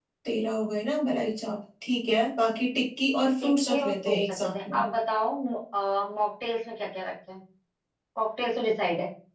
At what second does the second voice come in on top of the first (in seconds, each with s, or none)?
3.4 s